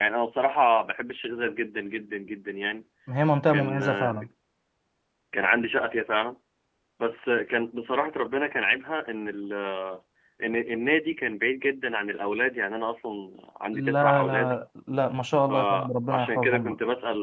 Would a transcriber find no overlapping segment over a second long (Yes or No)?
No